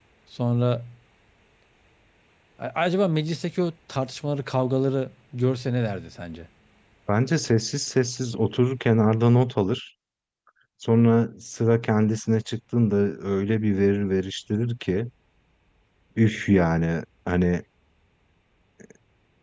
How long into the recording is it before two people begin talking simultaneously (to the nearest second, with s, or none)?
none